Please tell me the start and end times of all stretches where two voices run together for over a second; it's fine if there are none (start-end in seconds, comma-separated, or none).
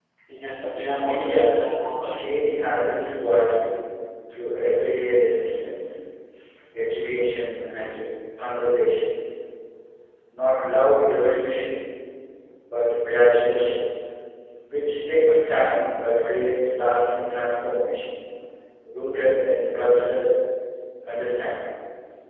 0.9-2.2